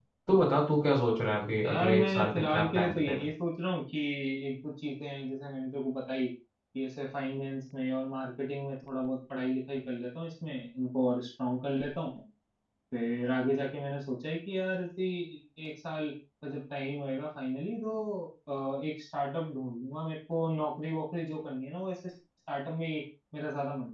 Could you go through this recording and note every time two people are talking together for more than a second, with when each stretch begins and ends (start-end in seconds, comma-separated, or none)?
1.6-3.3